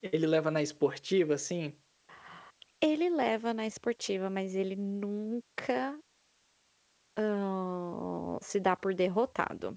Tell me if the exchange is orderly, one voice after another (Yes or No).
Yes